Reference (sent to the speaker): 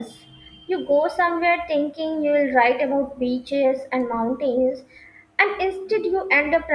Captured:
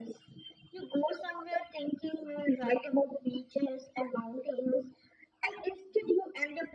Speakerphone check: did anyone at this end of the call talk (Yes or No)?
No